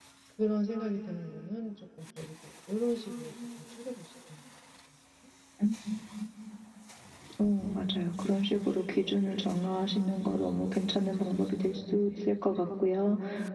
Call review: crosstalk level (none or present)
none